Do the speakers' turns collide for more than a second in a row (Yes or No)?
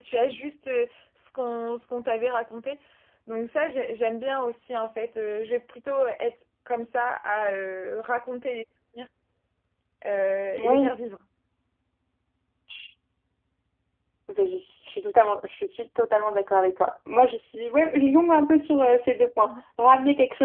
No